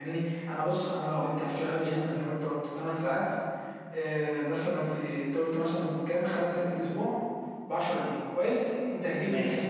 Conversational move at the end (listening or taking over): listening